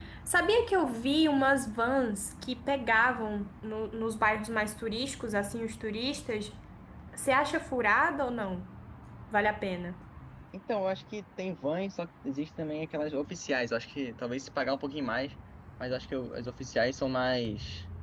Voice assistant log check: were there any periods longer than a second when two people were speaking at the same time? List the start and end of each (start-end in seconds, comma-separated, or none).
none